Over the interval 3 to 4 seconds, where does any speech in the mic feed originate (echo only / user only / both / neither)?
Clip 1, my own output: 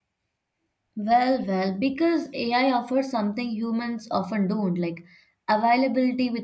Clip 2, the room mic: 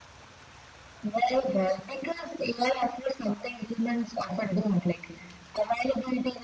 echo only